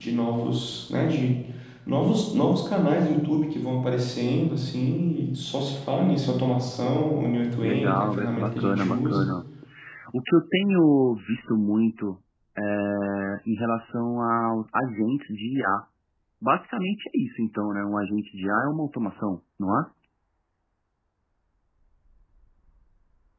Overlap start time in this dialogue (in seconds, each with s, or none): 7.6 s